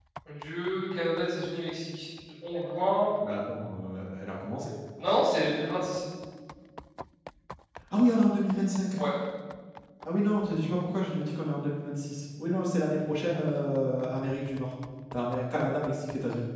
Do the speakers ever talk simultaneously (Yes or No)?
No